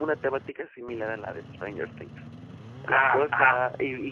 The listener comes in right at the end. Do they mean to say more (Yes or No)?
No